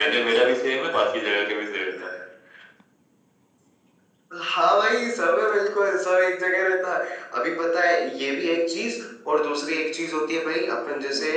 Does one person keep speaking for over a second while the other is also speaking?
No

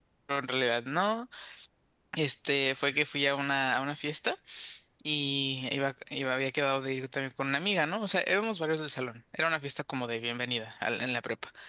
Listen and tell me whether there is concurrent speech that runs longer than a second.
No

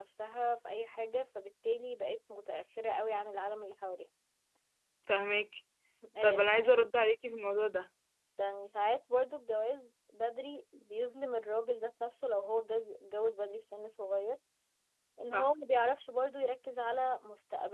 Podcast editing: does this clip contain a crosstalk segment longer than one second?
No

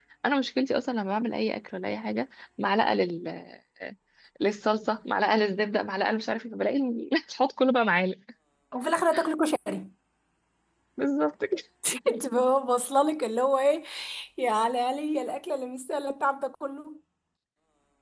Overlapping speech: No

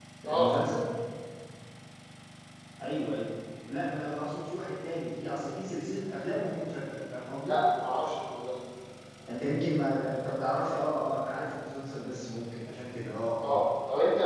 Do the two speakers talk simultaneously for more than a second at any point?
No

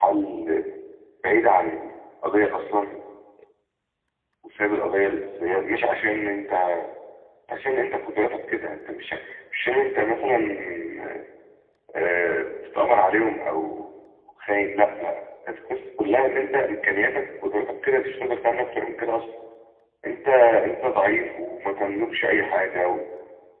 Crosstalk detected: No

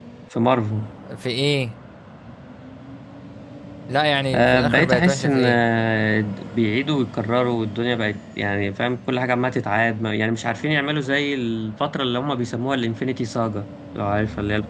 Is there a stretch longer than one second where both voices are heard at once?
Yes, from 4.3 s

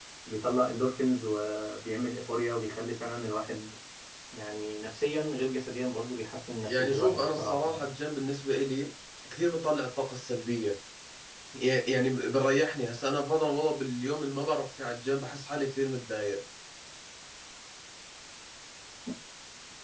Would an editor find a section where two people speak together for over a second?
Yes, from 6.6 s

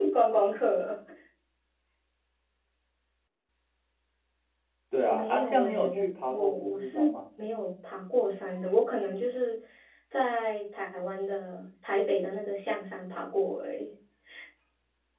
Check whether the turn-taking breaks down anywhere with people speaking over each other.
Yes, from 5.0 s

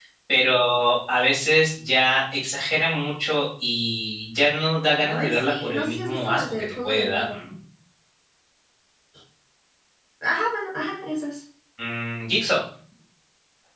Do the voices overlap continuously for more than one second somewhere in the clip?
Yes, from 5.0 s

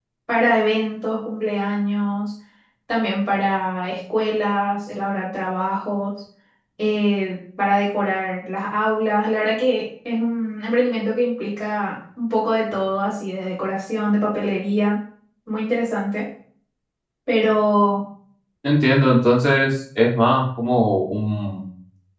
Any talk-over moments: No

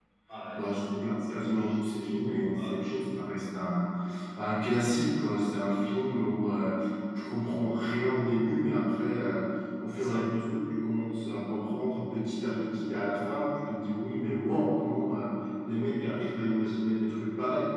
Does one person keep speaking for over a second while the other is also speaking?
Yes, from 0.6 s

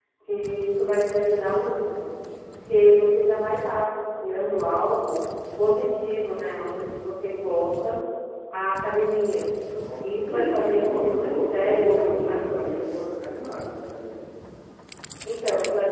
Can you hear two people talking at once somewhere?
Yes, from 10.0 s

